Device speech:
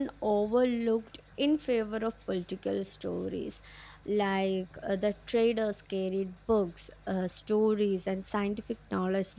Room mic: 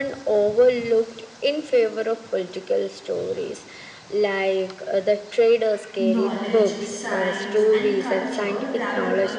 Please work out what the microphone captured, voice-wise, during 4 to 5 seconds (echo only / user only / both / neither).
echo only